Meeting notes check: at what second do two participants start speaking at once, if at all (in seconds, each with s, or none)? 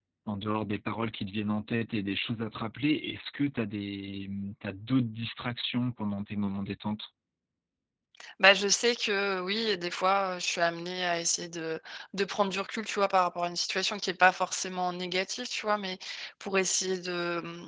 none